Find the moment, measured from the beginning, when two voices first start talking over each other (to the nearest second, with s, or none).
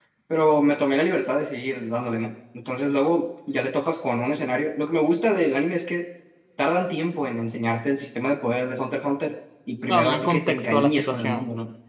10 s